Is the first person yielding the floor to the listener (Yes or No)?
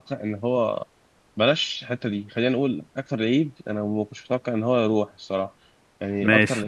No